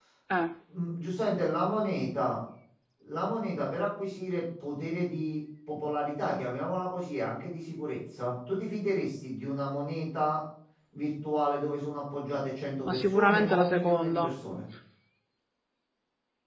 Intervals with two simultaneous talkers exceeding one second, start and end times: 12.8-14.3

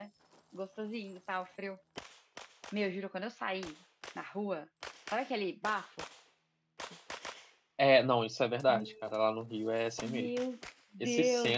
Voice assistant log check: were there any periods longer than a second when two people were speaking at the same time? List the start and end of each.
none

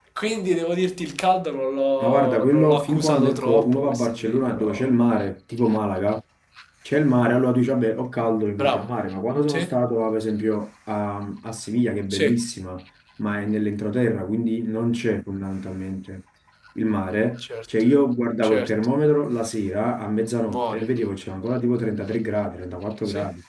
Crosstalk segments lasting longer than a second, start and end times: 2.0-5.0

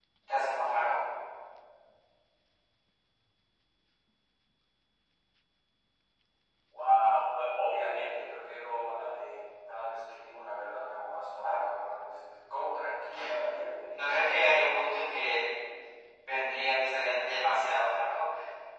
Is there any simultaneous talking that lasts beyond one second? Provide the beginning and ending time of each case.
none

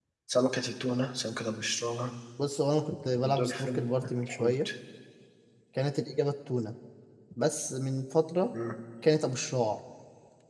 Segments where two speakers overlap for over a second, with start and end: 3.2-4.7

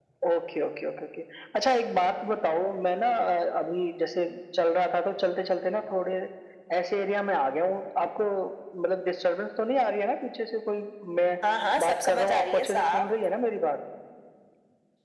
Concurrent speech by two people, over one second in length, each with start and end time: 11.8-13.0

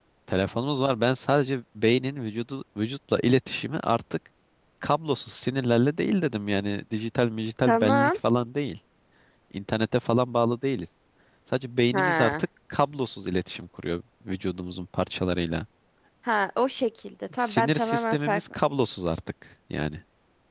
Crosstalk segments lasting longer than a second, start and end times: 17.4-18.6

